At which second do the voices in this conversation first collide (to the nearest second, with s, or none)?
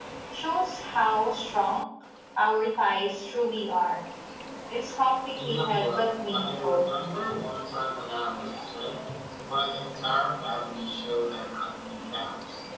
5 s